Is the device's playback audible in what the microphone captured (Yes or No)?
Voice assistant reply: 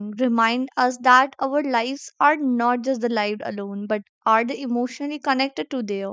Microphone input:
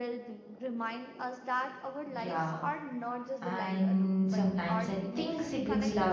Yes